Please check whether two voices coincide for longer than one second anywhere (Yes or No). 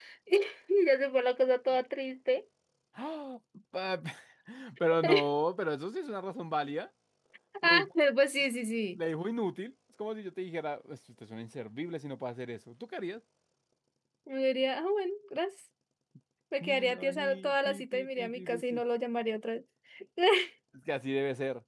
Yes